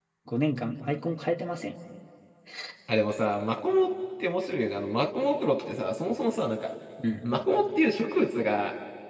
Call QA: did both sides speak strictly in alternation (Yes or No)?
Yes